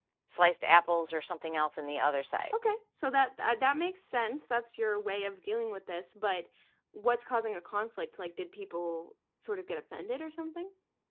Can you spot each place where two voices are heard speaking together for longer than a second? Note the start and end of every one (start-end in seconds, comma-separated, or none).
none